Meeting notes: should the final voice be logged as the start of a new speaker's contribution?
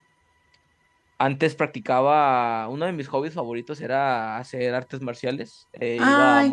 Yes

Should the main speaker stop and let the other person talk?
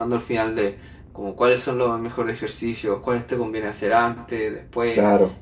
No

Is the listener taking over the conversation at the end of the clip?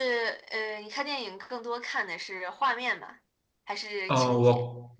Yes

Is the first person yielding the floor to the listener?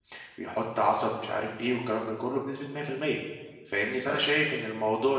No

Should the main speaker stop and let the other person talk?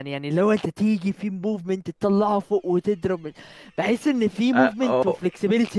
No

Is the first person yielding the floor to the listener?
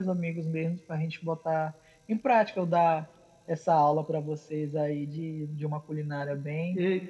Yes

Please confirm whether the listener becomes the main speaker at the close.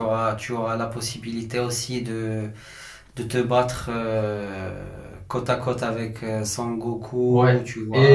Yes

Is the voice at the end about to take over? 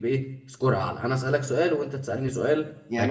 Yes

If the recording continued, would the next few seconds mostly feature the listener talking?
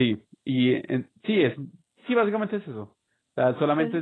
Yes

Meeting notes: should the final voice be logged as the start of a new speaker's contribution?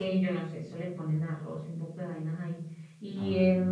No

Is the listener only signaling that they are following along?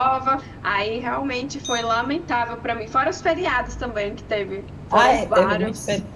No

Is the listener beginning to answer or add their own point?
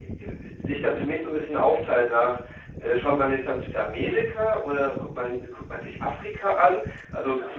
No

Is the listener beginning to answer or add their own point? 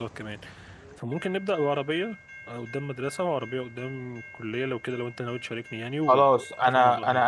Yes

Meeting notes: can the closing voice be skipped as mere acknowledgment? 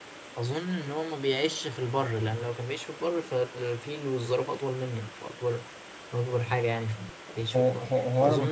No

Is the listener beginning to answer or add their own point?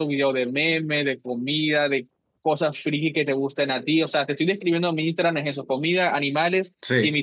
No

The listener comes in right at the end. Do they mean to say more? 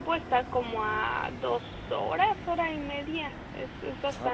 Yes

